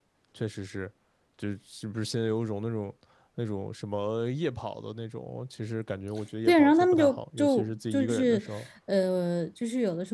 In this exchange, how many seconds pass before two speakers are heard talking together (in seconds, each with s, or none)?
6.5 s